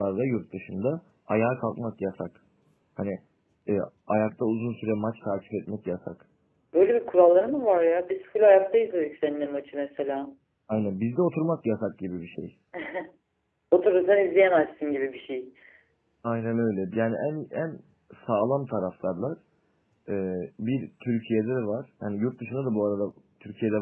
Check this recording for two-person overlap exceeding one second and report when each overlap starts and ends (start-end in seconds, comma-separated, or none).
none